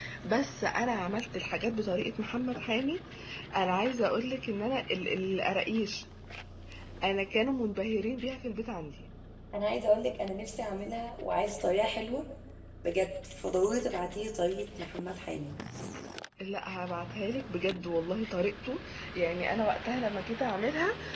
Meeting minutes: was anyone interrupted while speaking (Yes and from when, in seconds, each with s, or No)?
No